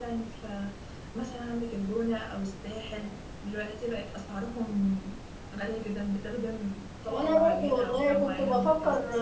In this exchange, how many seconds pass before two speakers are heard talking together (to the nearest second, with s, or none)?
7 s